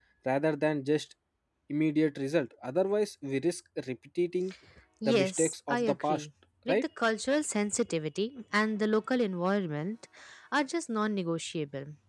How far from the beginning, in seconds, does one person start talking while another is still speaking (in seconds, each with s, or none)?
5.0 s